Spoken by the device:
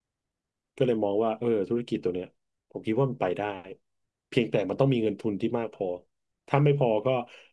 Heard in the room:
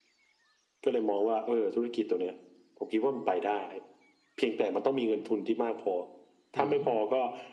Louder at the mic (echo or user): echo